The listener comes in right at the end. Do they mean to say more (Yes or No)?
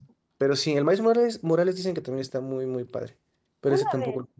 Yes